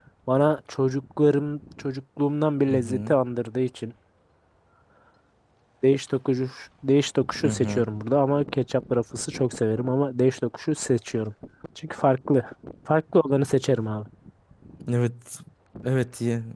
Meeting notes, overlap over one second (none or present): none